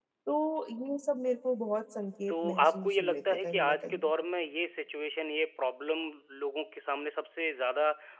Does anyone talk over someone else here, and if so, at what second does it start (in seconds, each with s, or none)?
2.3 s